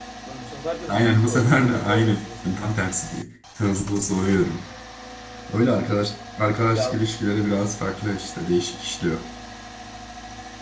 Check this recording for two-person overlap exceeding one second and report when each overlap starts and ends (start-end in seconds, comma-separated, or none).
0.9-2.2